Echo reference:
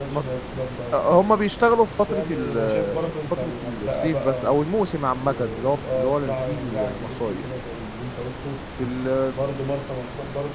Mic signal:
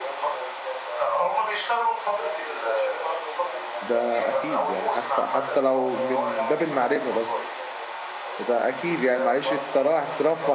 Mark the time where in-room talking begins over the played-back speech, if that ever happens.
3.8 s

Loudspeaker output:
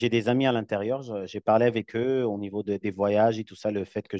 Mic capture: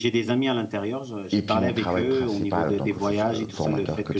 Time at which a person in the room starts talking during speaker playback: 1.3 s

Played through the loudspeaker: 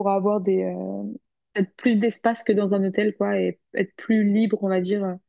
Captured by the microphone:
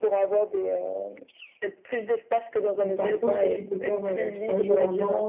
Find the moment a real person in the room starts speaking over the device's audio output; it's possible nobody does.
2.8 s

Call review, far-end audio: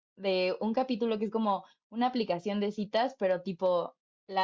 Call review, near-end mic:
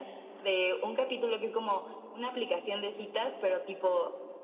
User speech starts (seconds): none

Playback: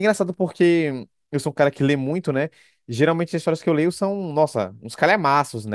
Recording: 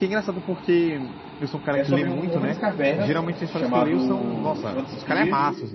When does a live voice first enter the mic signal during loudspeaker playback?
1.7 s

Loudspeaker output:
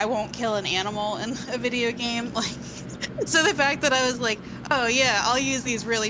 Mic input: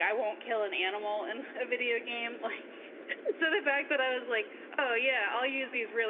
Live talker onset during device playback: none

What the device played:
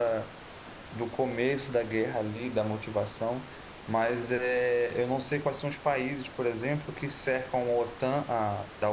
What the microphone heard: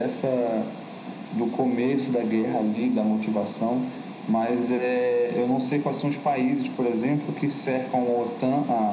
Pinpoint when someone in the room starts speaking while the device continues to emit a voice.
none

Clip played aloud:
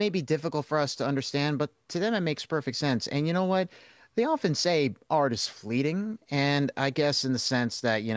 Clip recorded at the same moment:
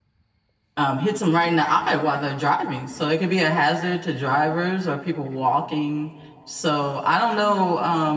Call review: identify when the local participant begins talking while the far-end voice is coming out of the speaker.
0.8 s

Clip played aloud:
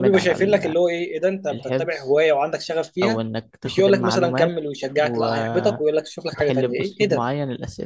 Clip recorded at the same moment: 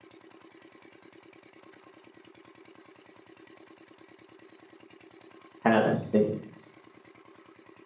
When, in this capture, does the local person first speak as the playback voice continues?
5.6 s

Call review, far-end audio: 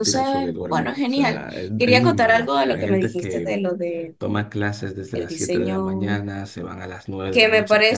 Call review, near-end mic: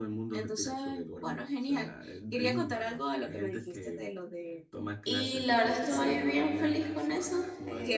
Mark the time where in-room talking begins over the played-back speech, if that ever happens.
5.0 s

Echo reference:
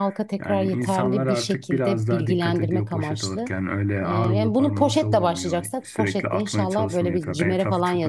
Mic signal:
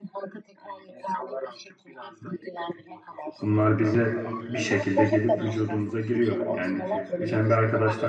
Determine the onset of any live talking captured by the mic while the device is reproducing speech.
3.4 s

